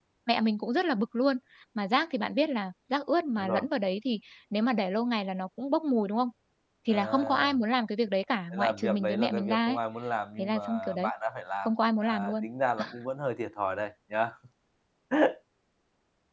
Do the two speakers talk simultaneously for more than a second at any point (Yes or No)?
Yes